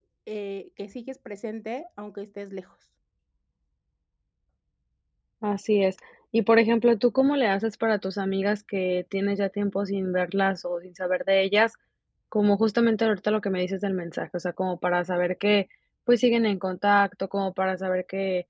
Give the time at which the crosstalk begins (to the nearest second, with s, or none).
none